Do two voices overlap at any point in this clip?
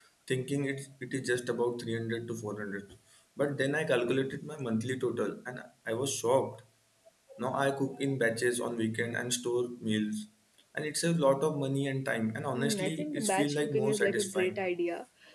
Yes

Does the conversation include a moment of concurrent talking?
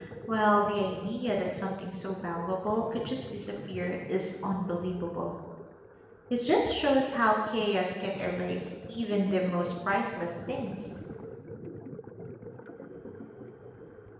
No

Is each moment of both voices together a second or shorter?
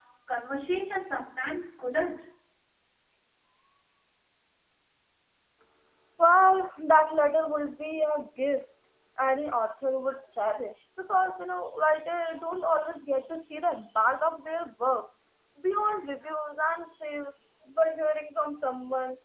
Yes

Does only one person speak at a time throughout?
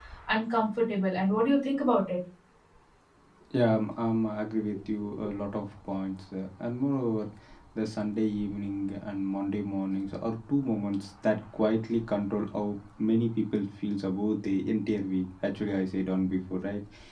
Yes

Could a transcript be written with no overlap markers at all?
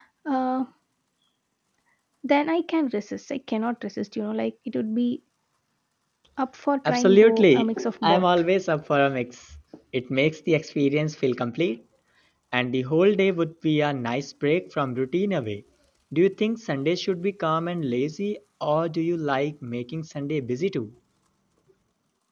No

